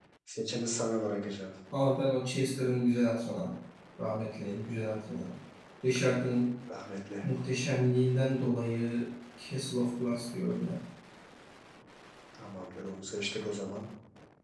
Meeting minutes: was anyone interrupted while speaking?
No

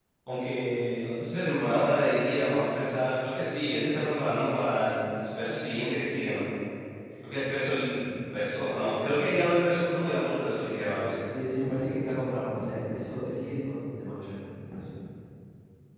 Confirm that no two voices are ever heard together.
Yes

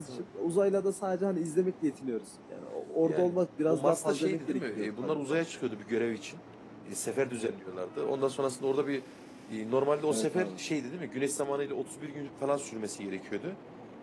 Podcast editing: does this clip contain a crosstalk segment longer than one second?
Yes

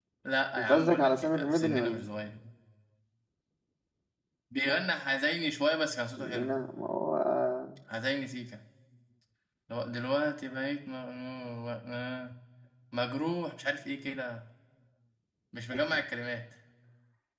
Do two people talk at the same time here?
Yes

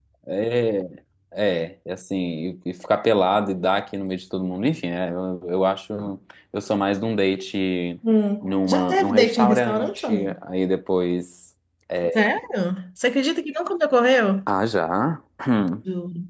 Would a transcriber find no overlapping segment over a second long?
No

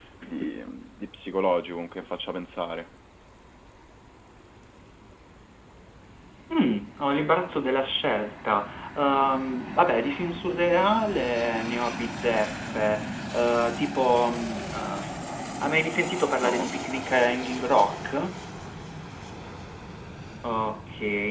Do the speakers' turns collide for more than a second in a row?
No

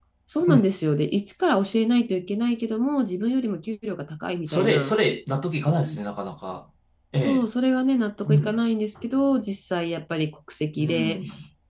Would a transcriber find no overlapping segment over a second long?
Yes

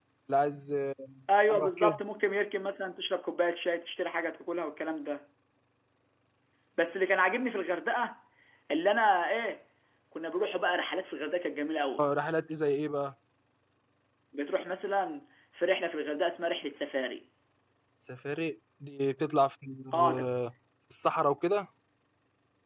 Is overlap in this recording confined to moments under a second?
Yes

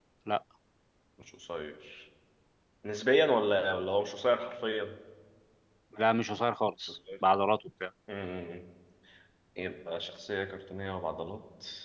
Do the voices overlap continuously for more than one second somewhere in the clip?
No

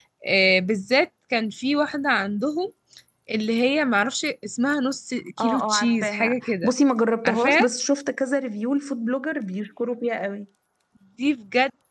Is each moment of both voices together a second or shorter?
No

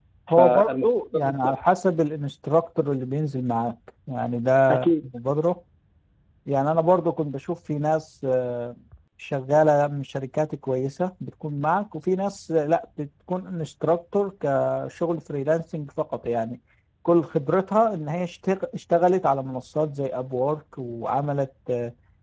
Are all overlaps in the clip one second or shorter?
No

